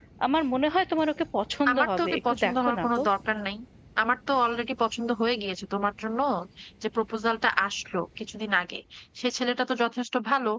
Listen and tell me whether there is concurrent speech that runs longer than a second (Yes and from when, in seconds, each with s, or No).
Yes, from 1.6 s